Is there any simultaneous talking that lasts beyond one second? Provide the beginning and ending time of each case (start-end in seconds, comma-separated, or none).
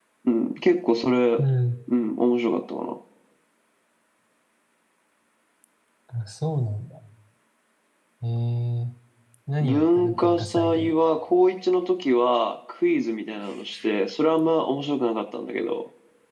9.6-10.9